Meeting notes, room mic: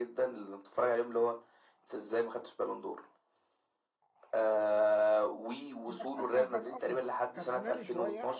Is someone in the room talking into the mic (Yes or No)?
Yes